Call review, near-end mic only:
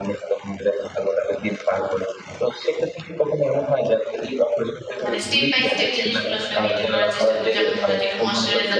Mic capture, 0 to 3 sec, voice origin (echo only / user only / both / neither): echo only